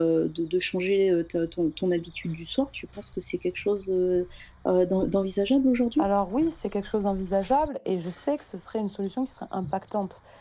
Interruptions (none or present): none